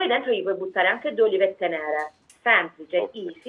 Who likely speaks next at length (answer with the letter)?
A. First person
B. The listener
A